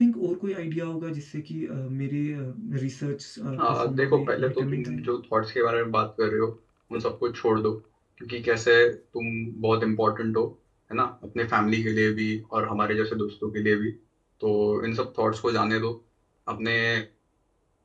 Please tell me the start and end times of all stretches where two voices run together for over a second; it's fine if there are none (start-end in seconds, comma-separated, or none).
3.6-4.9